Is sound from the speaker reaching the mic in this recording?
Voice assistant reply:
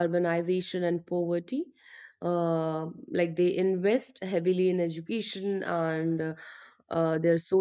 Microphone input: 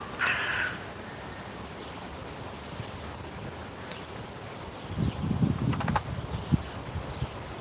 No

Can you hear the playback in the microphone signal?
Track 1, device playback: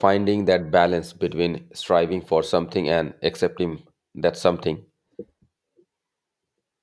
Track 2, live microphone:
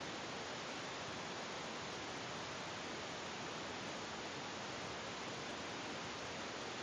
No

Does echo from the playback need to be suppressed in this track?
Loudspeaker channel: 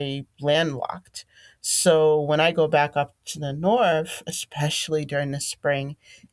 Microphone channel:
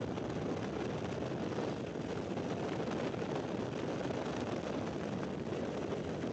No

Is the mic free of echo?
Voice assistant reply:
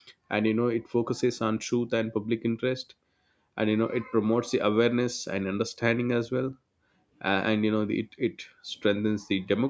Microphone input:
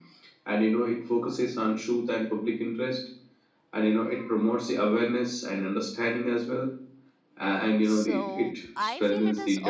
No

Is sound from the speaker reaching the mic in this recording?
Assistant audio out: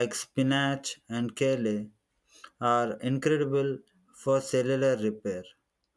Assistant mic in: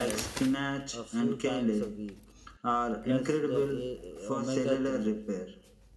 Yes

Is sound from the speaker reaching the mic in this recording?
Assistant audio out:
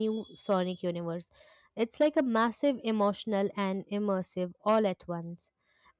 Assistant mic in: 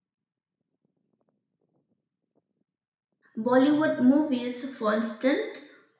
No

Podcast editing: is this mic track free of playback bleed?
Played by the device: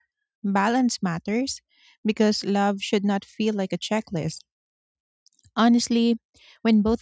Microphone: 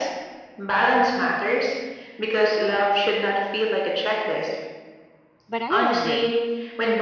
No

